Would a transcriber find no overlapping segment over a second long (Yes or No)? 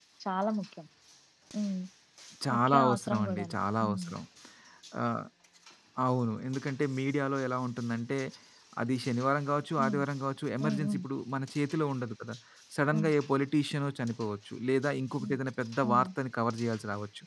No